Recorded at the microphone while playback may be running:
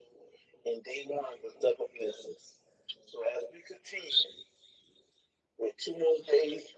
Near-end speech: none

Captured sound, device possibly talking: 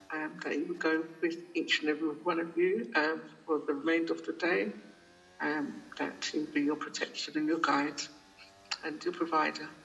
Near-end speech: none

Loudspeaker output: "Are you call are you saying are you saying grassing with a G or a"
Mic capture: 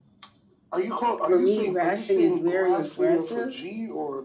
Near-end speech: present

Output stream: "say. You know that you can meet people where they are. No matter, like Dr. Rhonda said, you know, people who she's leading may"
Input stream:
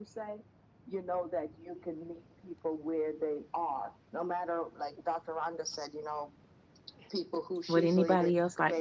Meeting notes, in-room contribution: present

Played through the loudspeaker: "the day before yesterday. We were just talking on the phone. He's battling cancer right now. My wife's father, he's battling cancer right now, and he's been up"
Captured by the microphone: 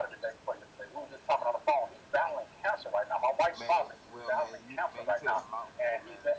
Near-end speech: present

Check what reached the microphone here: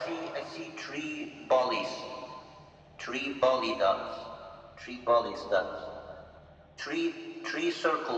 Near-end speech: none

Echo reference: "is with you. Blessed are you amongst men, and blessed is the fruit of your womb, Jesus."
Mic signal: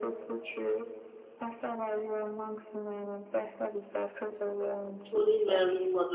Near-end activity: present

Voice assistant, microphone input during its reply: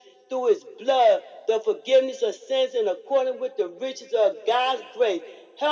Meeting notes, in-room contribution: none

